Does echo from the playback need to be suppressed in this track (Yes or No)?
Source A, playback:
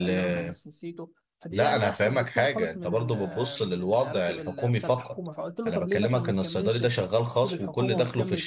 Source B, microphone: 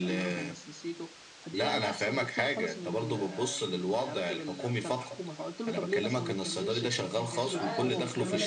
Yes